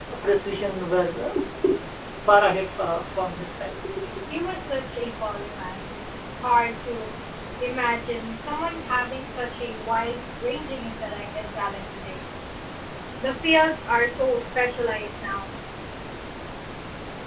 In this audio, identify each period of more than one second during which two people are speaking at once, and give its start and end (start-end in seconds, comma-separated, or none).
none